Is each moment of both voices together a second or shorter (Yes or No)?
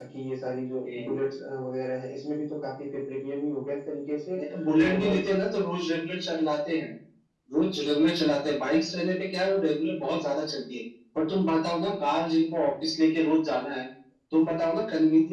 Yes